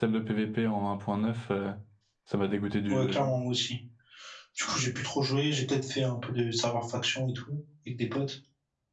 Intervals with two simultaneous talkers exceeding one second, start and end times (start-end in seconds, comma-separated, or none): none